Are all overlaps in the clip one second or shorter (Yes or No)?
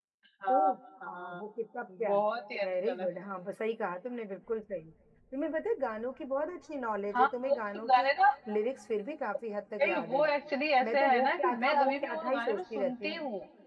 No